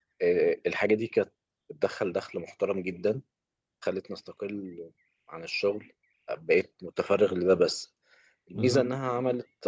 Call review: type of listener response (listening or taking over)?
listening